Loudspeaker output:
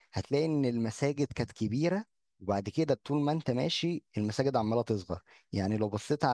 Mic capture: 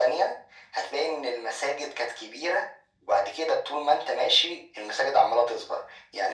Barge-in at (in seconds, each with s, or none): none